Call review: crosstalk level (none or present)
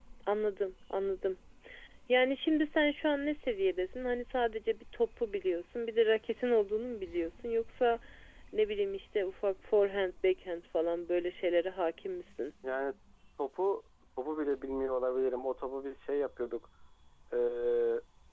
none